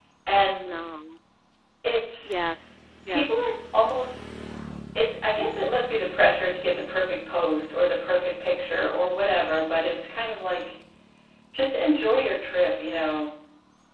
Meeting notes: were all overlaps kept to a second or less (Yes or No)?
Yes